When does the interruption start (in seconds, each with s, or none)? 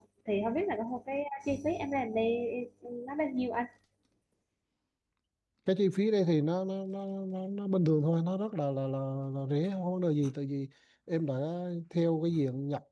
none